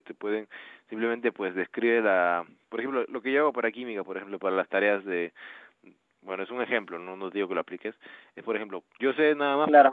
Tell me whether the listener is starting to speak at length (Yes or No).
No